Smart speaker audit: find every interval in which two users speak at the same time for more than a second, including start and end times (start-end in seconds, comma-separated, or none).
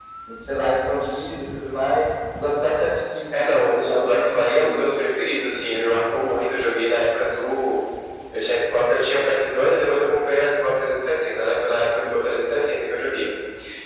3.3-4.8